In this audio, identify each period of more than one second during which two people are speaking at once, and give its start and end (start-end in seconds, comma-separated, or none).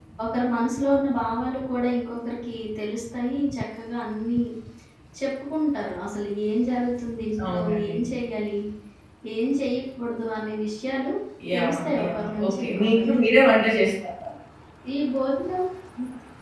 11.5-13.2